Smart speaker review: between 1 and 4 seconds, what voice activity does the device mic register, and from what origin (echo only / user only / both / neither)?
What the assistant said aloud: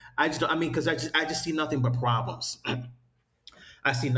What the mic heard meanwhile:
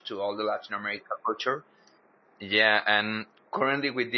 user only